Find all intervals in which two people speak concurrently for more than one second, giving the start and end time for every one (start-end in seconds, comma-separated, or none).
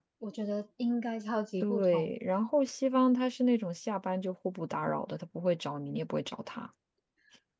none